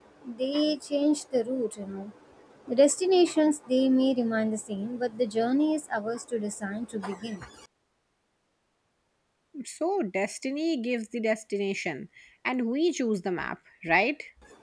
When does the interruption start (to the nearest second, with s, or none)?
none